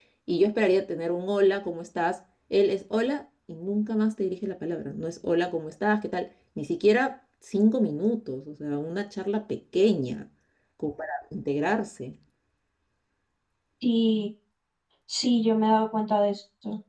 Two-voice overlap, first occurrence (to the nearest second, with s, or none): none